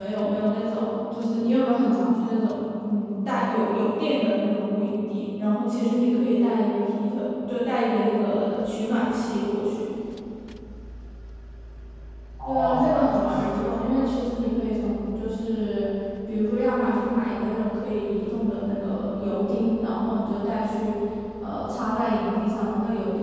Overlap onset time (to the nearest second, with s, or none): 12 s